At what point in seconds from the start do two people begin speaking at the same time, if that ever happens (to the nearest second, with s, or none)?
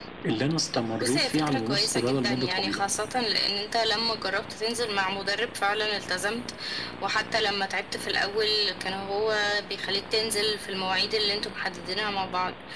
1 s